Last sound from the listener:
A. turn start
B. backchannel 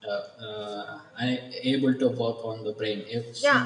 A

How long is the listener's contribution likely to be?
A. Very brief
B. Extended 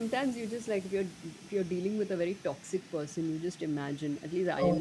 A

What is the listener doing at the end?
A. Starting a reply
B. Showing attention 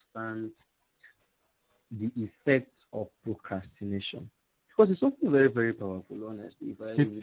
B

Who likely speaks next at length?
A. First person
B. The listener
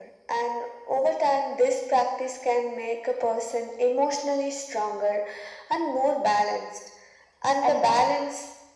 A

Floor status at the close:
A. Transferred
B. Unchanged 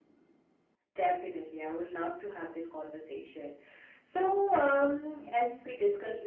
B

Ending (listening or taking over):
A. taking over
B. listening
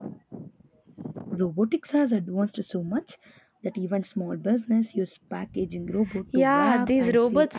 A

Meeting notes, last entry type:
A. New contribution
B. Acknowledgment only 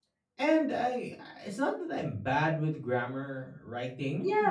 A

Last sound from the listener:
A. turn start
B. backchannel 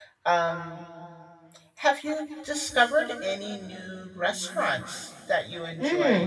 A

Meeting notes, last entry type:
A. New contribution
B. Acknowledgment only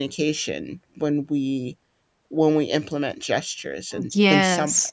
A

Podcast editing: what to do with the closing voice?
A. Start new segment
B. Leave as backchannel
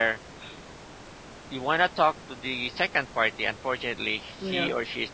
B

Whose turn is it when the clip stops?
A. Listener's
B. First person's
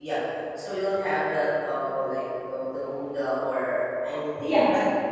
B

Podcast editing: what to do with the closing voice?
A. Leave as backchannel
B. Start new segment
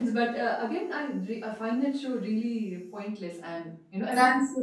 B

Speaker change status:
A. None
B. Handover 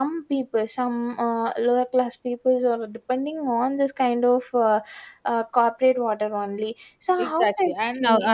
B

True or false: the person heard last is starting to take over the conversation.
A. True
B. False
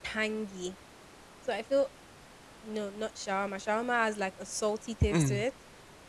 B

